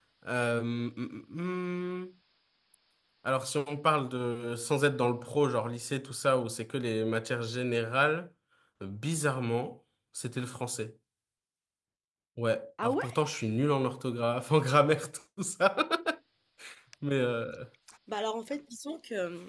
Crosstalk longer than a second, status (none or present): none